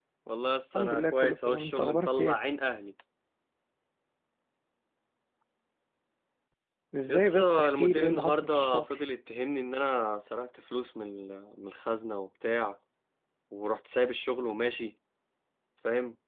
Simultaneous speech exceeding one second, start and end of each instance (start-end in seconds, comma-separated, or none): 0.7-2.4, 7.1-8.9